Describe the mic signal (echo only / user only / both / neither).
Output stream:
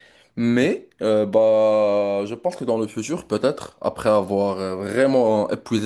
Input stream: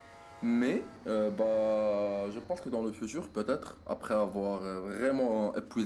echo only